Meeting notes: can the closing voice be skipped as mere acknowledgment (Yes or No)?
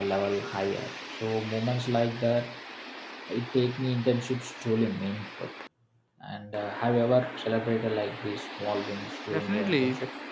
No